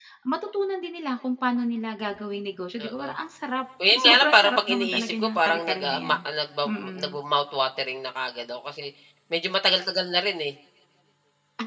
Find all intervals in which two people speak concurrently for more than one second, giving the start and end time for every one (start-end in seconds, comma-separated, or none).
3.9-6.2